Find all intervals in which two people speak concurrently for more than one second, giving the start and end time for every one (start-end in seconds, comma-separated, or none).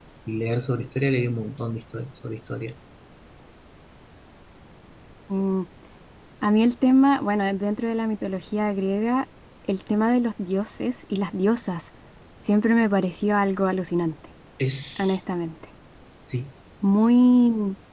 none